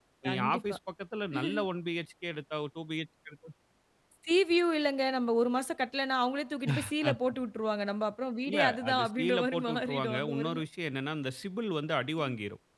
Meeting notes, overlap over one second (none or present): present